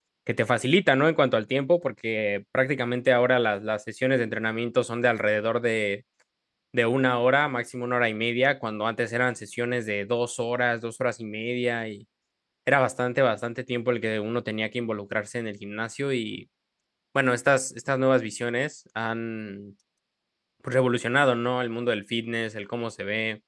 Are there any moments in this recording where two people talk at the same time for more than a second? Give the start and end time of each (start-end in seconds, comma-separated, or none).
none